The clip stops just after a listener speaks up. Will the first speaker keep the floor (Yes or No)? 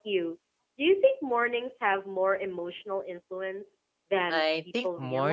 No